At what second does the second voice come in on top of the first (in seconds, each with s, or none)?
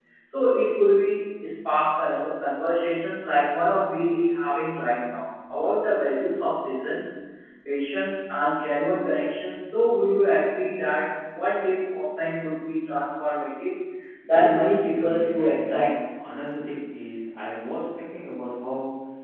14.3 s